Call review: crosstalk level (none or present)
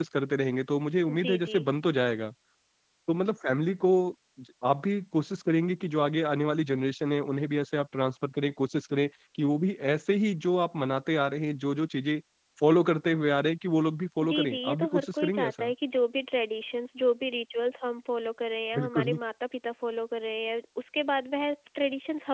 present